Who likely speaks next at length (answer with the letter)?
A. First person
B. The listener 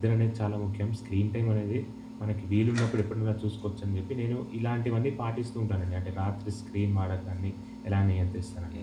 B